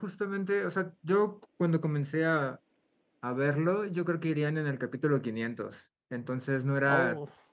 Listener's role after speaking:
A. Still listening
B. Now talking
A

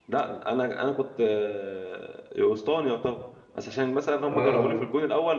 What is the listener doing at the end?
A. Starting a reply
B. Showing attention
B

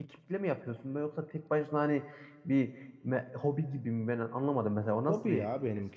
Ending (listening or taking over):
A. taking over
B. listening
A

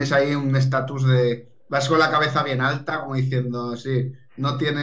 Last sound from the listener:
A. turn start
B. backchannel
B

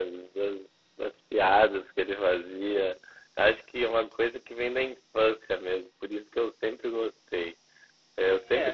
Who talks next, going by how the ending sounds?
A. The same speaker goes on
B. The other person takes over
A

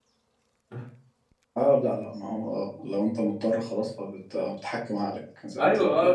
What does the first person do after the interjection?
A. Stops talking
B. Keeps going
A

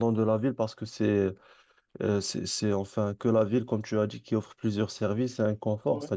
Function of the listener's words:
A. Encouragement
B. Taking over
A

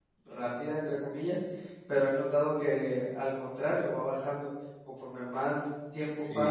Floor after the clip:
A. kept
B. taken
B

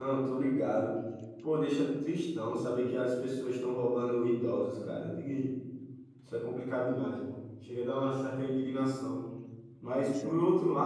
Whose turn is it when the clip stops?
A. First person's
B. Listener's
A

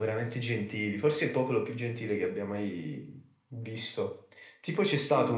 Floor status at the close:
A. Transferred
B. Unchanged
B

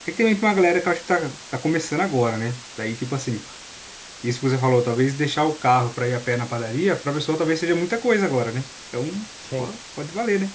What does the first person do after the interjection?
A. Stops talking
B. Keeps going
B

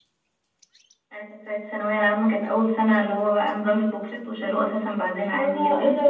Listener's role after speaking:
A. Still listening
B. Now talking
B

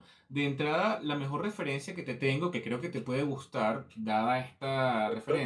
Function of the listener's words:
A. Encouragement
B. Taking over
A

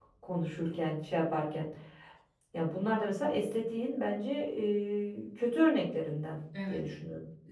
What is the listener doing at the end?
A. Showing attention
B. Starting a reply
B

